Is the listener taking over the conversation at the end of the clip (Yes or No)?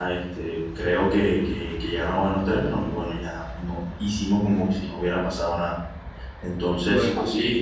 No